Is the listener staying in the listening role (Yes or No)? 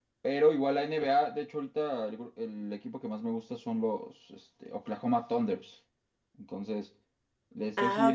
No